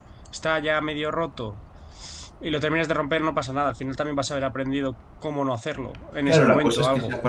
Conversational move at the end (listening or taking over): taking over